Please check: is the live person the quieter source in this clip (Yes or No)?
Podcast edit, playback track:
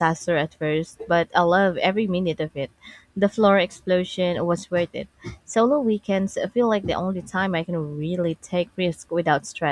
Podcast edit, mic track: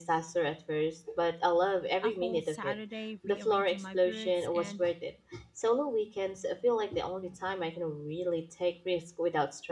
Yes